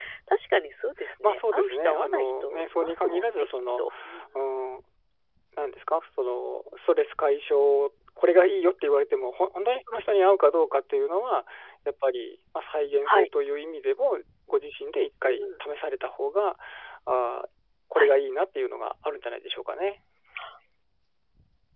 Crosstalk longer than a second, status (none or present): present